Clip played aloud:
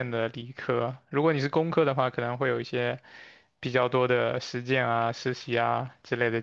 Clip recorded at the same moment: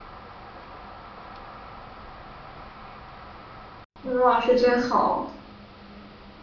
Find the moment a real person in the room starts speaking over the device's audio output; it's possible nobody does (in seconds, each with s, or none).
4.0 s